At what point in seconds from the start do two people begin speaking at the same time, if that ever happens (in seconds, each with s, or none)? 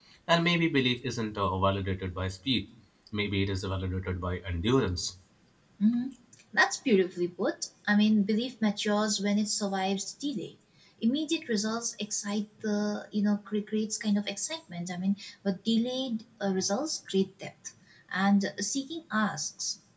none